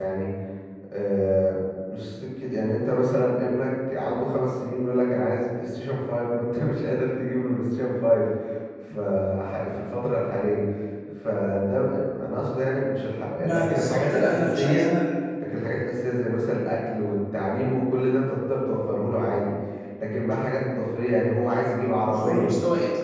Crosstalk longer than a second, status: present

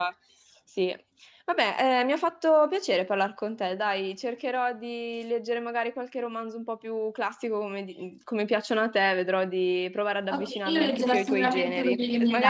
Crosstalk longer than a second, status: present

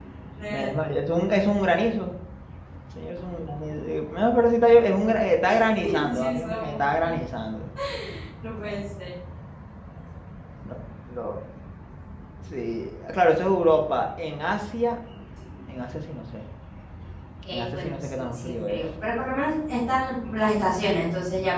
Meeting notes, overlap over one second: present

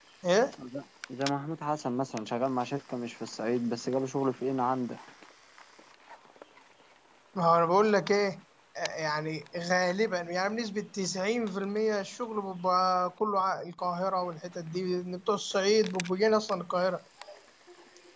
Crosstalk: none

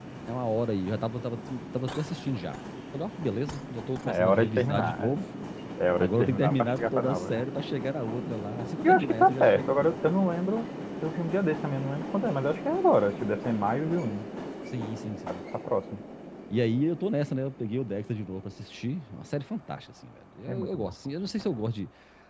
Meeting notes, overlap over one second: present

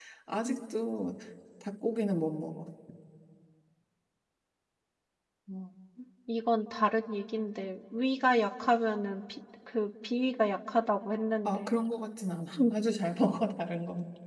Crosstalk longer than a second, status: none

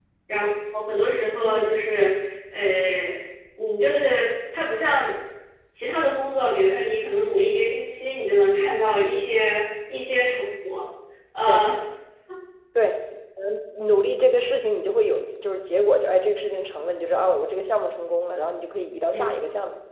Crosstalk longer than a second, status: none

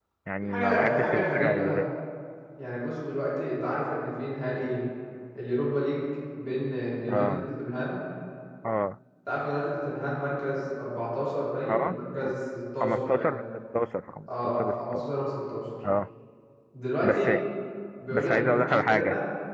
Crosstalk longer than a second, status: present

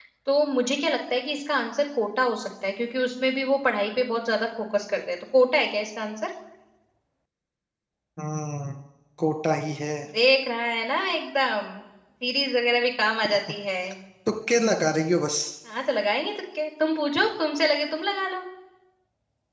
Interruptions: none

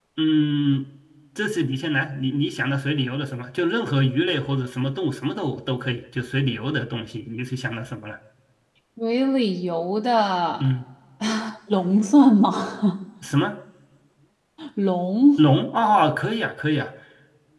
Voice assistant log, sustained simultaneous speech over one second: none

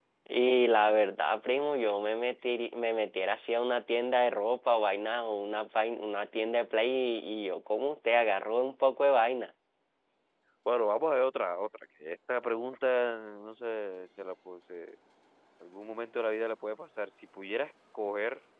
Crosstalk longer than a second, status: none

